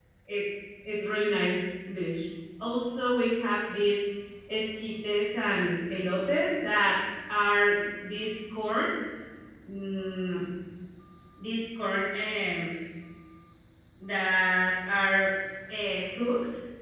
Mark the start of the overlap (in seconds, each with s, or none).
none